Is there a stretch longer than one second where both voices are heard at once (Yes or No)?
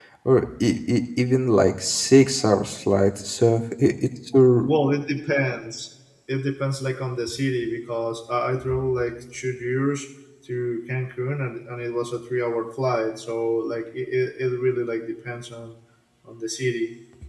No